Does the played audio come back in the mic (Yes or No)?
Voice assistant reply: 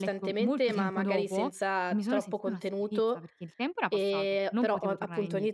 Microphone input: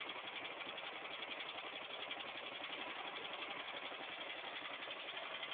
No